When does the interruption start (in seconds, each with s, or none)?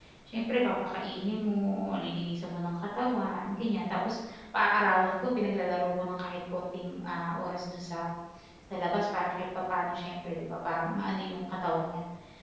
none